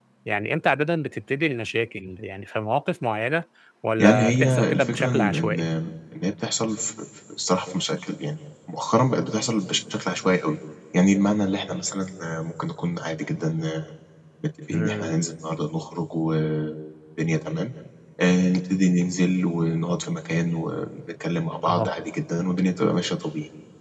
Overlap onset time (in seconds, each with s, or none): 4.0 s